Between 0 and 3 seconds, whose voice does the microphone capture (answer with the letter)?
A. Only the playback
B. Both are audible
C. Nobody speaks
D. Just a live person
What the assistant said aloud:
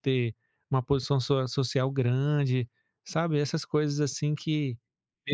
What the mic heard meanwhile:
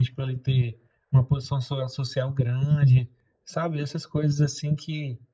A